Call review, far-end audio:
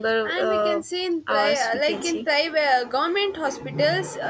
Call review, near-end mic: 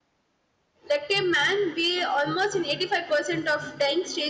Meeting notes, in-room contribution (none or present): present